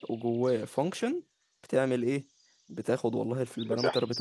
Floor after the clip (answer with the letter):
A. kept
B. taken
A